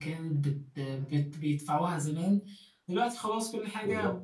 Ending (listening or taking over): listening